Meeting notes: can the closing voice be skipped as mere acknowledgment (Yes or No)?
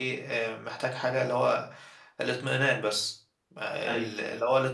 Yes